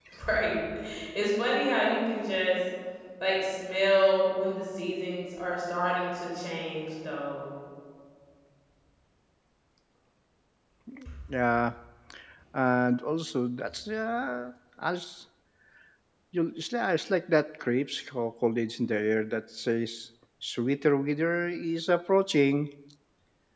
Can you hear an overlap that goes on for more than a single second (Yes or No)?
No